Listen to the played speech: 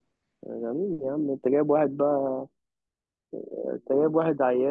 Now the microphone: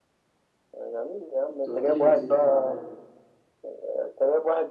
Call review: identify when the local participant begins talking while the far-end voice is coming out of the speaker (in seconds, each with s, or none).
1.6 s